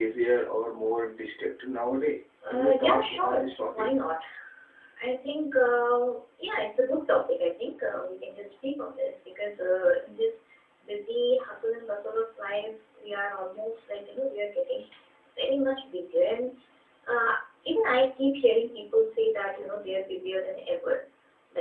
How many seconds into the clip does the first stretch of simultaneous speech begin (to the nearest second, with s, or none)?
2 s